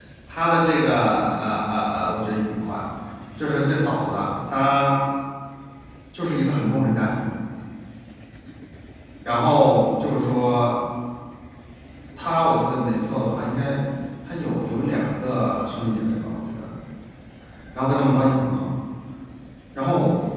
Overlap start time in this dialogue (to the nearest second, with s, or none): none